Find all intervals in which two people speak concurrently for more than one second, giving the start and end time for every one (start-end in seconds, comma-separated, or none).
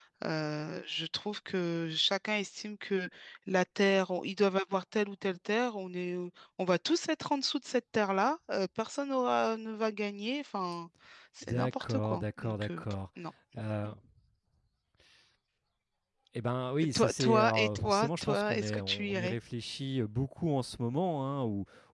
11.4-12.8, 16.9-19.4